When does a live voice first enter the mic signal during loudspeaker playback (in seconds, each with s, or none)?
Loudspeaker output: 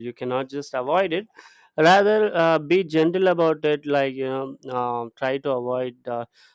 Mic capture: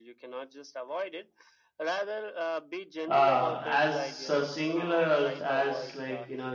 3.1 s